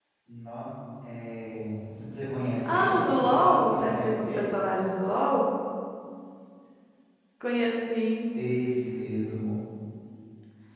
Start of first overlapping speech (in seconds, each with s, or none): 2.6 s